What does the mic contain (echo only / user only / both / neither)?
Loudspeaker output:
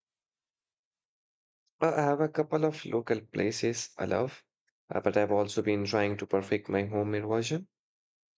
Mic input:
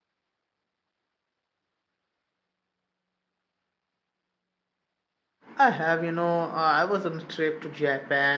user only